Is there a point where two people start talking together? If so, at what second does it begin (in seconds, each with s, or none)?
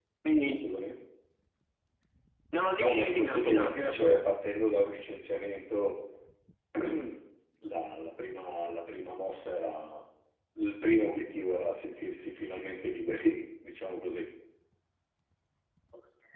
2.7 s